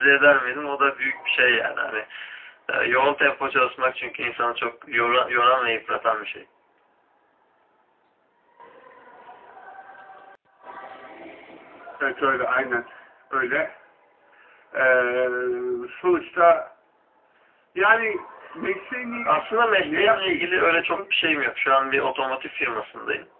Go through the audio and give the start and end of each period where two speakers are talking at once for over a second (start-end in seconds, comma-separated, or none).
19.2-21.0